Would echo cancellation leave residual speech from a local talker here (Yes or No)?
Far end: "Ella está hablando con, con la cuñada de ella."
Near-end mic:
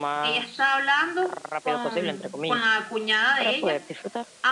Yes